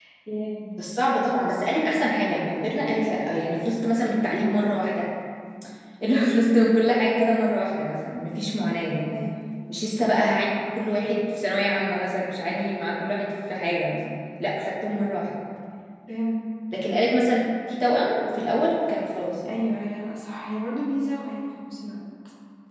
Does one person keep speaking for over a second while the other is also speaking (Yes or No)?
No